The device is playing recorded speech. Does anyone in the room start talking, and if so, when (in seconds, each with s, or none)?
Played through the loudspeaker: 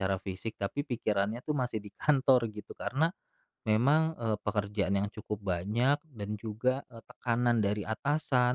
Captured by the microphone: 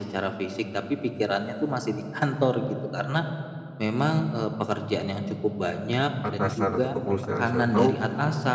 6.2 s